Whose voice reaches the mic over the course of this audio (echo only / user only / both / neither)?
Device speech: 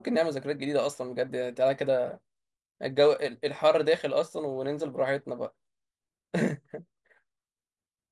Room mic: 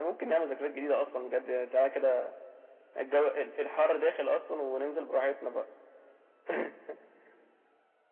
echo only